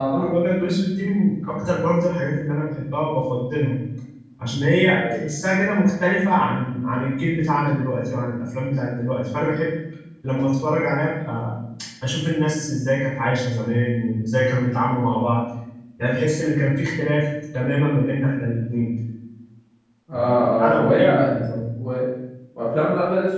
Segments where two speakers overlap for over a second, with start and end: 20.1-21.5

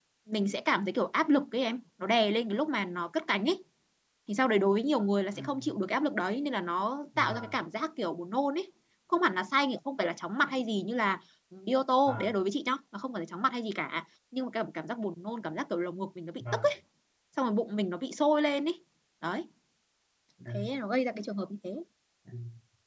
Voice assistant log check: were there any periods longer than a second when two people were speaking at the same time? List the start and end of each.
none

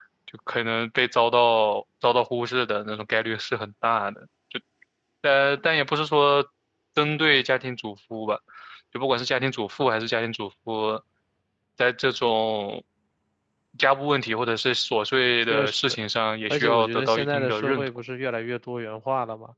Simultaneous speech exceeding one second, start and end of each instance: 16.5-17.9

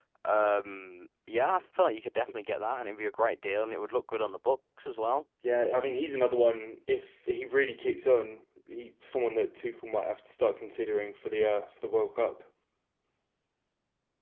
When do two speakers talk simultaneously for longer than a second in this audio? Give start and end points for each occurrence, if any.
none

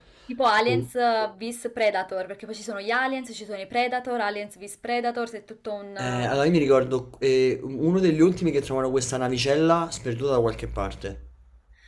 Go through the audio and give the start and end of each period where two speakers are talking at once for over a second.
none

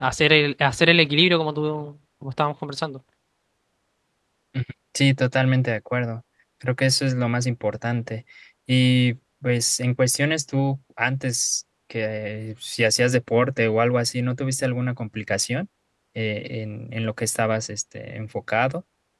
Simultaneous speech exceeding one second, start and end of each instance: none

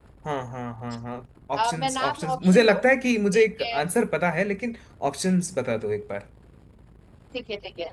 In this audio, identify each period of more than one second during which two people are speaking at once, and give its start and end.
1.6-2.9

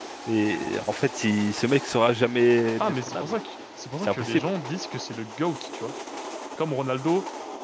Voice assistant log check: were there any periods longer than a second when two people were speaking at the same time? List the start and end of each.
none

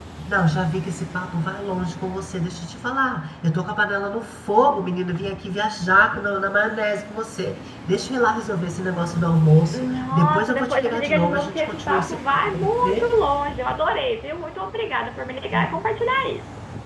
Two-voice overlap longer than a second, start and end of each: 9.7-13.1

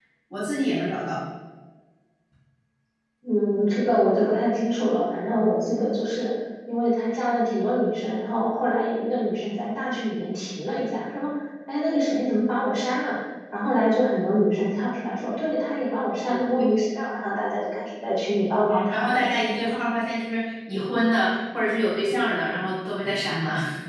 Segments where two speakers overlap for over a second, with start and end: none

